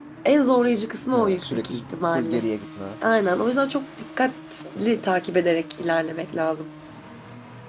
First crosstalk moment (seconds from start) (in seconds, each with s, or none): 1.2 s